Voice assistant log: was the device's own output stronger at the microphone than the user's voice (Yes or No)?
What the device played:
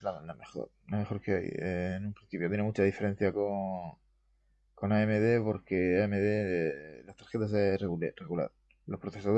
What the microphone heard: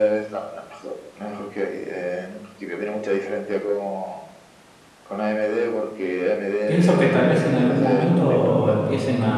No